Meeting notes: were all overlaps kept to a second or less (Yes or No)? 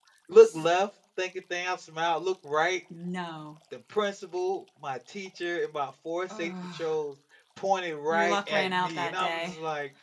No